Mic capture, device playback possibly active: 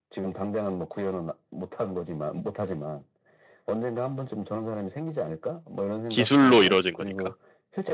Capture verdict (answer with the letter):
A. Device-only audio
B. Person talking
B